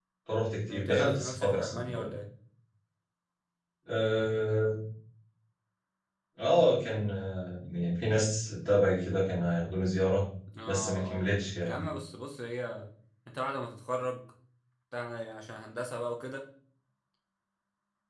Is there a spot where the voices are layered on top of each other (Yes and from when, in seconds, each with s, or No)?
Yes, from 0.7 s